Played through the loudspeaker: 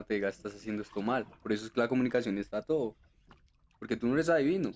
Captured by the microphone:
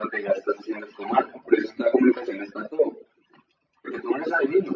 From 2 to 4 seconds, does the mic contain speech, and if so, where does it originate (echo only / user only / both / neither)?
echo only